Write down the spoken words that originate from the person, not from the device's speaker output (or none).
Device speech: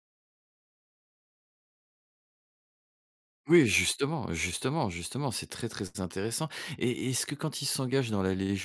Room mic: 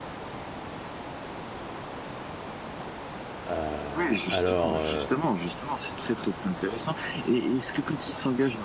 Heu, alors, heu,